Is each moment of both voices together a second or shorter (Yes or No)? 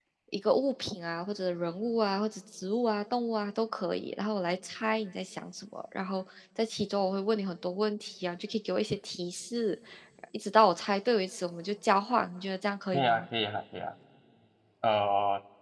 Yes